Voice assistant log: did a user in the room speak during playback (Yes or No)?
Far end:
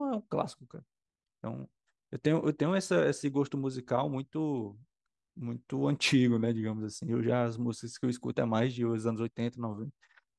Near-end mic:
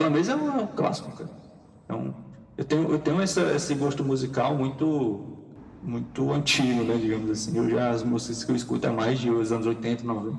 No